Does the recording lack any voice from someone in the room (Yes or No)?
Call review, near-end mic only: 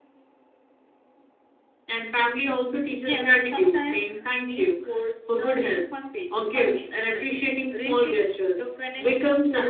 No